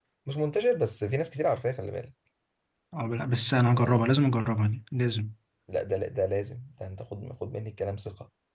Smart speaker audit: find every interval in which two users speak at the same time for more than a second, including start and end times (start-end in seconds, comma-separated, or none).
none